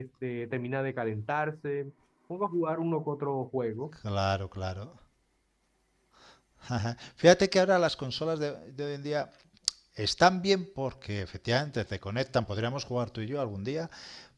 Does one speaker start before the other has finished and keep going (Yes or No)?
No